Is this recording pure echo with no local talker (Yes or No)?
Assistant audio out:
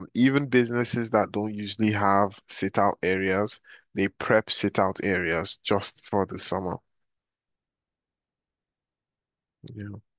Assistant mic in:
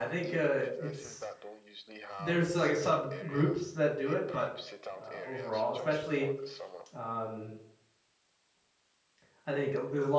No